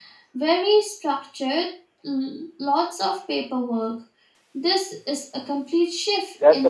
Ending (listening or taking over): taking over